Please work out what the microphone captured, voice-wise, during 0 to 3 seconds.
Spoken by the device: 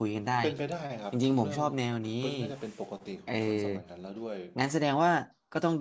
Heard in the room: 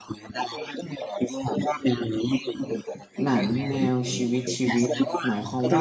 echo only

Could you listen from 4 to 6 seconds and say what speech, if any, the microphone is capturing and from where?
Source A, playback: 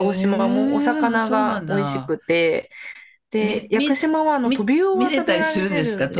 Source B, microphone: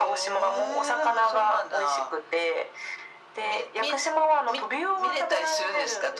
echo only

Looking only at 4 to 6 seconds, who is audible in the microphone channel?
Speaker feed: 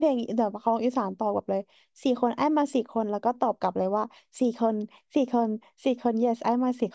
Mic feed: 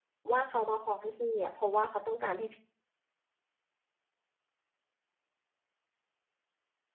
neither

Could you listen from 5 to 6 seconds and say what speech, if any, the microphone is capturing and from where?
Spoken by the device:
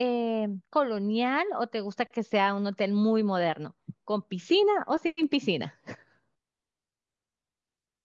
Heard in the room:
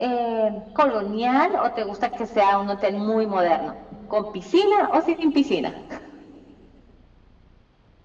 echo only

